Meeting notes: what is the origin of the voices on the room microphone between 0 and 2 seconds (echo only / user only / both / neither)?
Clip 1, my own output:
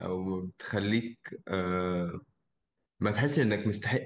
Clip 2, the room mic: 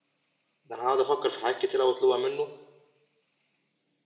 user only